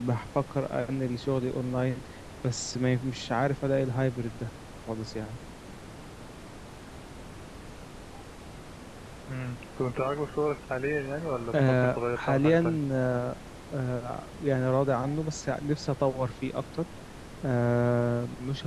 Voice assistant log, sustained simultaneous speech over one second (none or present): present